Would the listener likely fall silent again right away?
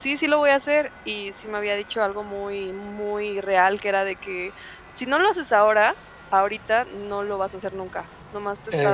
Yes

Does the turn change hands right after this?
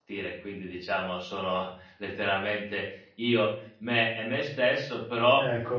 No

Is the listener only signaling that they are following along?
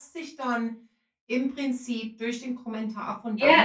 No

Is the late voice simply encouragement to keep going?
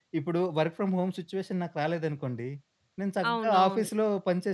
Yes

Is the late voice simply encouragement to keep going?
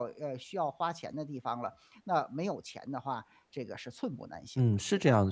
No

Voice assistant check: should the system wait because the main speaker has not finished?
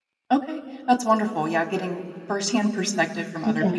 Yes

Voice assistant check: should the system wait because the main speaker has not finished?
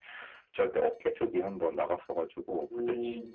Yes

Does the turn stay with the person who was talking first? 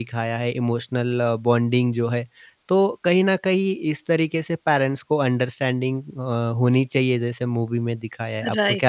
No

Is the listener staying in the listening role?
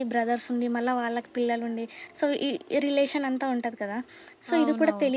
Yes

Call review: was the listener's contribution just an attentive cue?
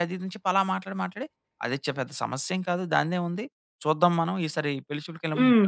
No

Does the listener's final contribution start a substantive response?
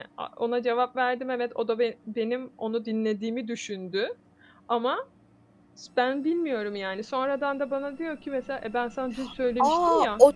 Yes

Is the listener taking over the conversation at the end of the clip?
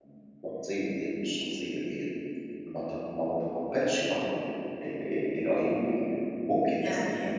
No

